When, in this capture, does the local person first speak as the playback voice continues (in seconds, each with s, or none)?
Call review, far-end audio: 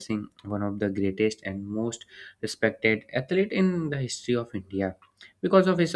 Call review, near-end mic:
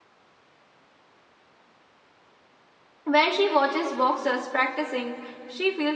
3.0 s